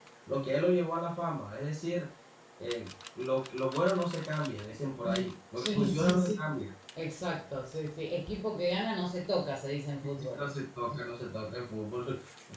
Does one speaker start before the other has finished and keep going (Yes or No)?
Yes